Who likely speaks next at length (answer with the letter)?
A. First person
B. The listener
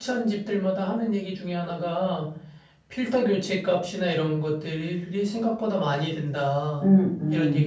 B